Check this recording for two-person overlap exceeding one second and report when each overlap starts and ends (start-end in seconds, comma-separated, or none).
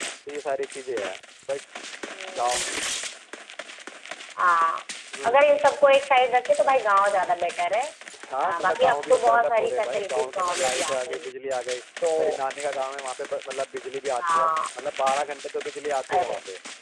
8.4-11.4